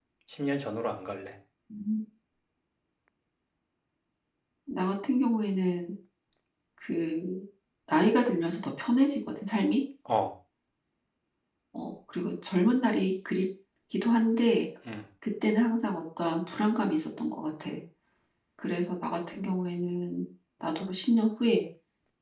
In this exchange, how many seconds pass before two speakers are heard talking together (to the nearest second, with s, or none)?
none